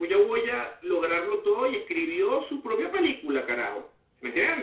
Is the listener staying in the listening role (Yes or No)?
Yes